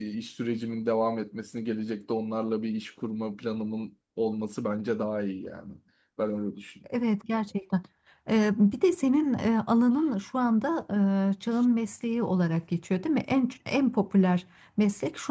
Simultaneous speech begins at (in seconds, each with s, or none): none